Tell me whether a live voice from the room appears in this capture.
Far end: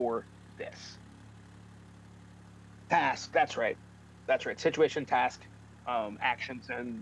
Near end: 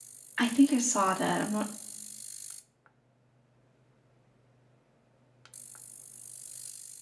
Yes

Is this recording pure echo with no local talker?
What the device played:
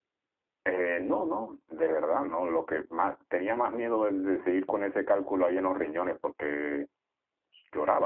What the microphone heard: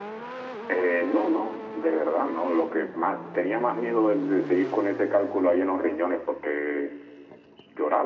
Yes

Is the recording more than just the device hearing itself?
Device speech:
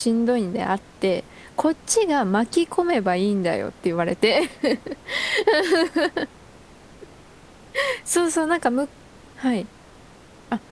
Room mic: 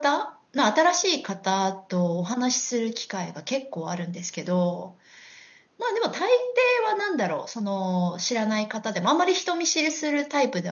Yes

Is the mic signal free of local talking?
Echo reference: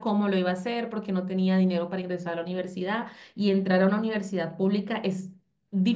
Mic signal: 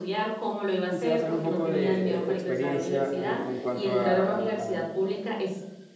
No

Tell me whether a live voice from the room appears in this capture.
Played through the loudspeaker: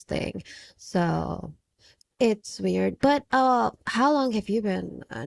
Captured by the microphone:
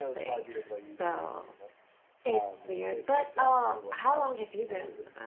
Yes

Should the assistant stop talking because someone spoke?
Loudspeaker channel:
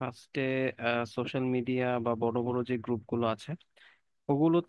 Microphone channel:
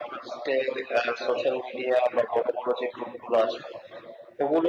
No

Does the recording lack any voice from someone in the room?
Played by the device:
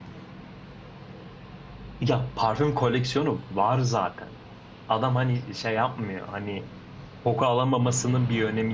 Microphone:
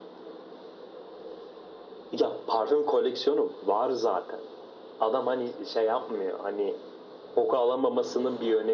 Yes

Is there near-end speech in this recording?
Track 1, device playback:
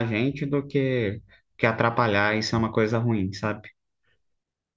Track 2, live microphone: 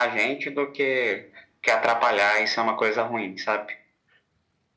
No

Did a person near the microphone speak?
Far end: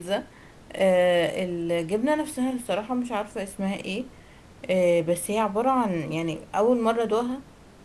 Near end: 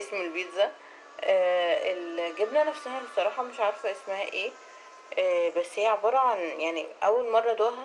No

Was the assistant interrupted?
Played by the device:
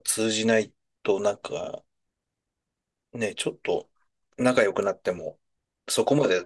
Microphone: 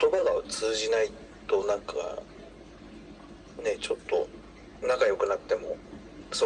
No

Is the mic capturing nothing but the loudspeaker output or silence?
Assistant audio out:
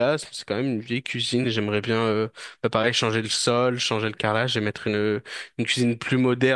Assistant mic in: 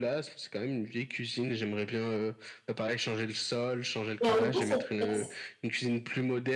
No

